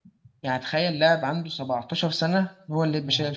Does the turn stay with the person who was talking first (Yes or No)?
No